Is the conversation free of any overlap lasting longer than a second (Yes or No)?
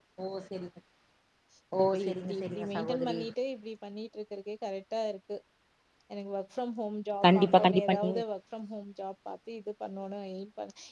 No